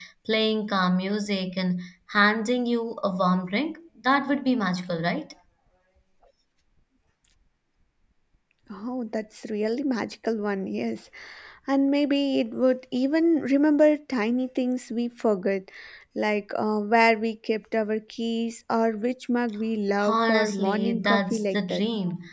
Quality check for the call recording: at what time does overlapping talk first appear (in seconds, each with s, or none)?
20.0 s